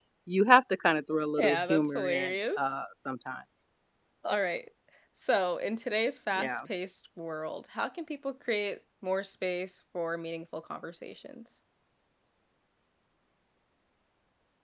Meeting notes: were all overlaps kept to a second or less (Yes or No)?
No